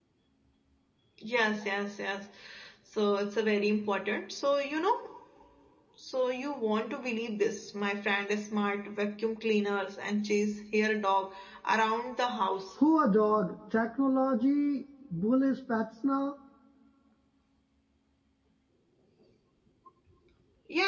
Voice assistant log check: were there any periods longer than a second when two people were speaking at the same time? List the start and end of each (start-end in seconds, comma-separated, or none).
none